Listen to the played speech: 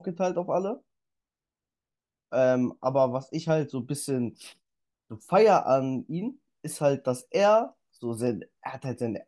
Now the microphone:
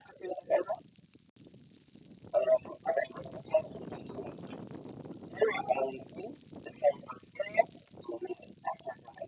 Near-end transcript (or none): none